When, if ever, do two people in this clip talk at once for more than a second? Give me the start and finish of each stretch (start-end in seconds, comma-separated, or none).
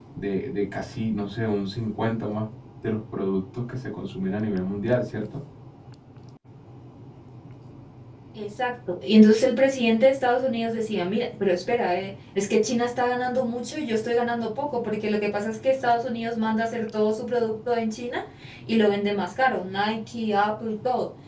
none